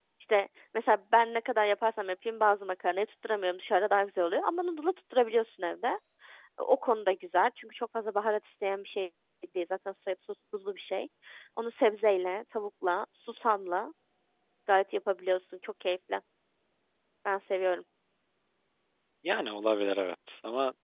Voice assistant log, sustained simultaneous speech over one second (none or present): none